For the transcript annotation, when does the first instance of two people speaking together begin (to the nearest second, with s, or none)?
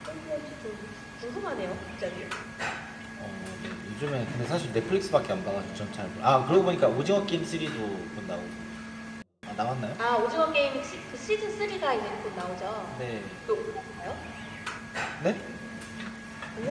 none